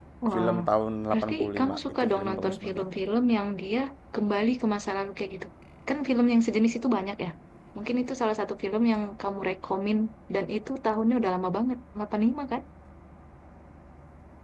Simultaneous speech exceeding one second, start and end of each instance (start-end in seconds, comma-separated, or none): 1.1-2.8